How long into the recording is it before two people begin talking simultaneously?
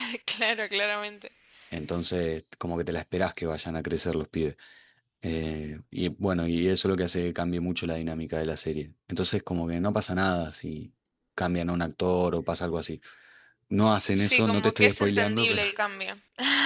14.2 s

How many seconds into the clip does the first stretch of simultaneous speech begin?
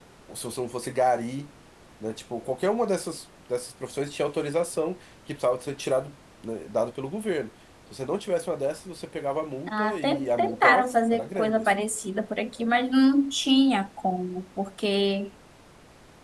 9.7 s

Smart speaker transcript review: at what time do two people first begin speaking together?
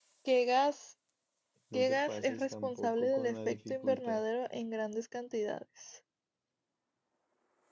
1.7 s

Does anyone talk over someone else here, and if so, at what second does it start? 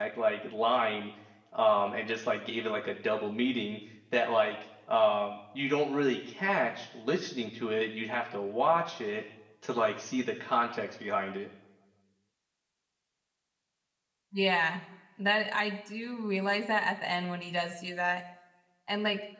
none

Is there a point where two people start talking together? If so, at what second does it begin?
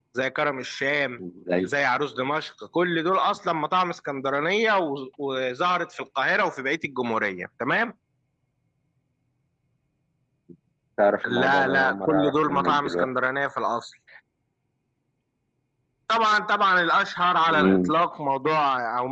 11.4 s

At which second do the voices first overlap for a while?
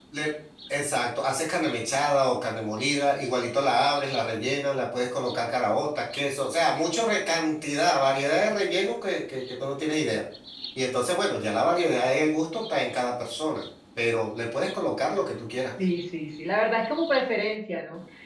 none

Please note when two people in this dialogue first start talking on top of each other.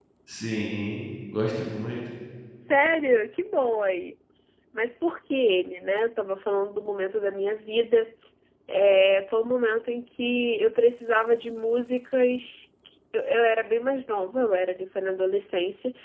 none

